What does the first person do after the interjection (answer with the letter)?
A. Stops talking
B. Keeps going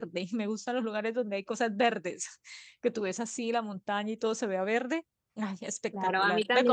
A